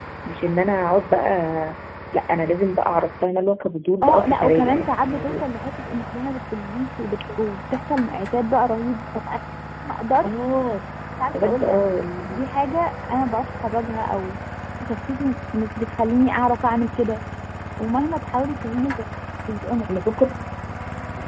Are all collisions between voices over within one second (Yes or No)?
No